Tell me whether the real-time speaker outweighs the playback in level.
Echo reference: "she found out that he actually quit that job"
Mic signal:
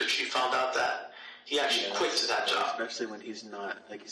No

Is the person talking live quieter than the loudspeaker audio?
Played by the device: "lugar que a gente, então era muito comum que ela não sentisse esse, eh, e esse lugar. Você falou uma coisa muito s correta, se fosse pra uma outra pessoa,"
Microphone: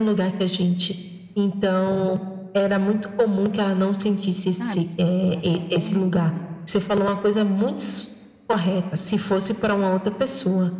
Yes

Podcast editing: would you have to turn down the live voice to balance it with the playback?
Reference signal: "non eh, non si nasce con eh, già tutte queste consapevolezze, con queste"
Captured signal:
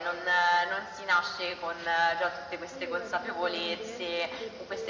No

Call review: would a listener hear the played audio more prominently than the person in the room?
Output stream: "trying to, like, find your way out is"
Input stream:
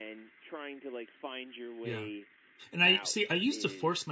No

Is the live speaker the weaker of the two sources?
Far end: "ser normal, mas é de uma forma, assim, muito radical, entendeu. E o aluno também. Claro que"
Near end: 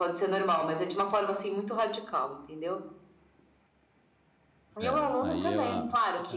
Yes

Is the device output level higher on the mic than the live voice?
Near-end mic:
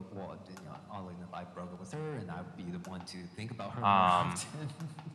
No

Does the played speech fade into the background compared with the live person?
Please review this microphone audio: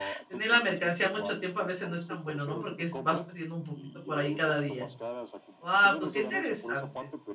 Yes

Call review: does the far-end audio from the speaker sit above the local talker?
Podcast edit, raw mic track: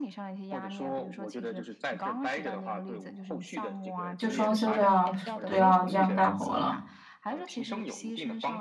No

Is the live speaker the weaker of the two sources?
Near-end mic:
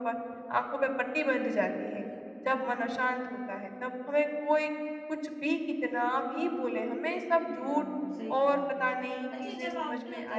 Yes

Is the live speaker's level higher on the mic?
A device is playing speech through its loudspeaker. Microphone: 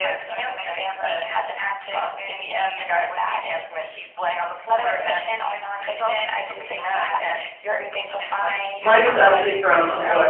Yes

